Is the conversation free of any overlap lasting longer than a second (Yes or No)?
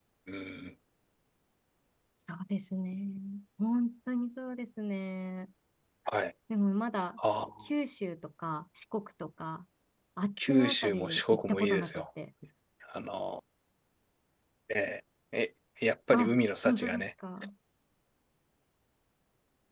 No